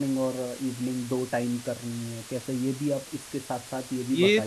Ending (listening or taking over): taking over